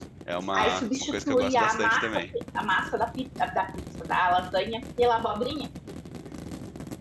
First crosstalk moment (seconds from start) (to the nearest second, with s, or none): 1 s